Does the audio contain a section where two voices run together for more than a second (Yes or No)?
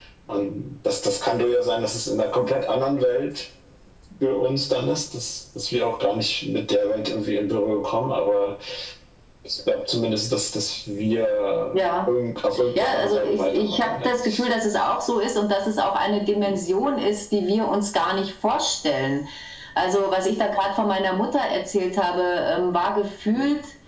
Yes